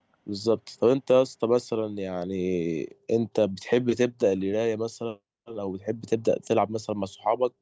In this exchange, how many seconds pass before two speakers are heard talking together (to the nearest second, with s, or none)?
none